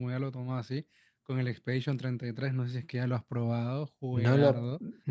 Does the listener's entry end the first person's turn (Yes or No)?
Yes